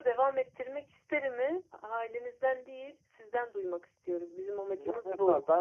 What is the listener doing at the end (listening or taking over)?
taking over